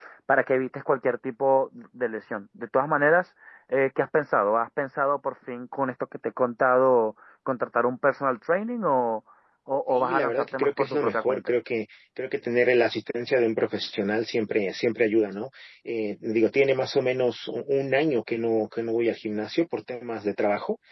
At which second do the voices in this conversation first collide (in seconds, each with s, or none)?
9.9 s